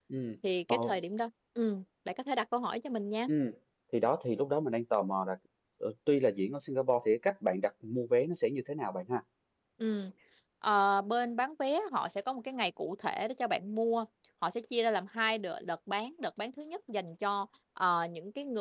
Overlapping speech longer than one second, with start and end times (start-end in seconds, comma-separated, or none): none